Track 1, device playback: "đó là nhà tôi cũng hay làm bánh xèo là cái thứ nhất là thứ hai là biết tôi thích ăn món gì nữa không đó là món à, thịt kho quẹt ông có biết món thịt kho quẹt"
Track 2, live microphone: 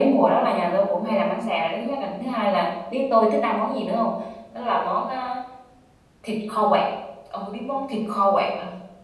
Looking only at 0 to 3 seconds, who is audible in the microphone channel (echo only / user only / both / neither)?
echo only